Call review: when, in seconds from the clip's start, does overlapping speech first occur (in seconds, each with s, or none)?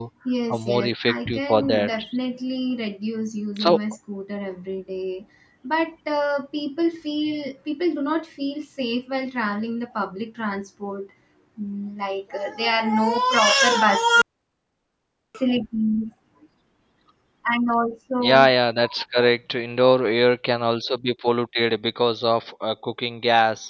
0.5 s